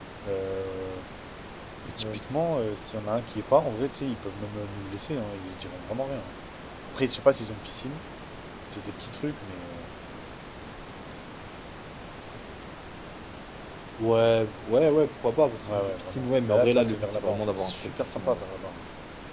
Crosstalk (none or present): present